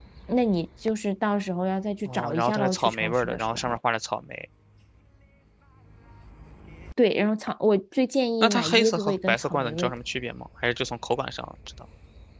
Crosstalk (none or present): present